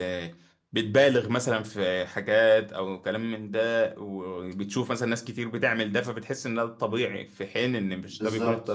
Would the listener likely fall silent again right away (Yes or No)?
No